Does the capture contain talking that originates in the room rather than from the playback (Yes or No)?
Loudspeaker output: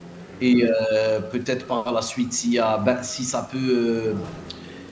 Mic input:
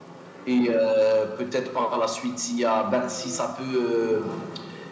Yes